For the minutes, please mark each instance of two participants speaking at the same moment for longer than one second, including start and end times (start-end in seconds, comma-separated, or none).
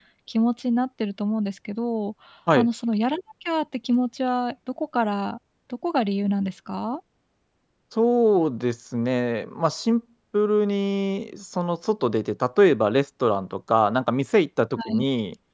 none